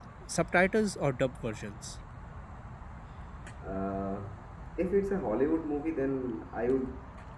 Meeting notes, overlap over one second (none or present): none